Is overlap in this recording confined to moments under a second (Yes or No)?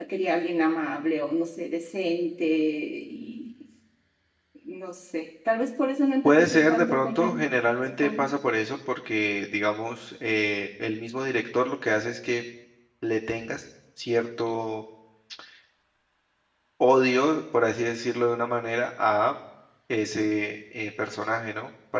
No